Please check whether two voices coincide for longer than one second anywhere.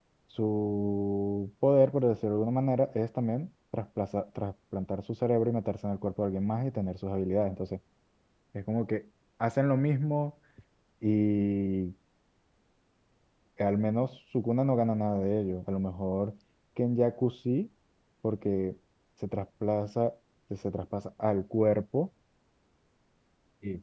No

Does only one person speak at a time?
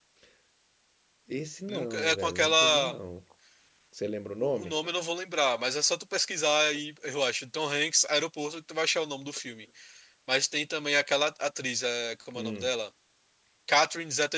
No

